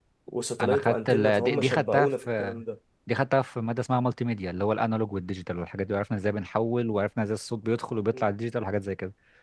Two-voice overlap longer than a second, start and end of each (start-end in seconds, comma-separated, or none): 0.6-2.6